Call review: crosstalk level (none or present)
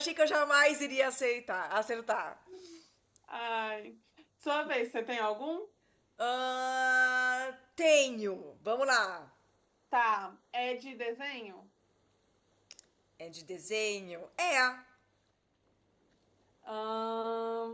none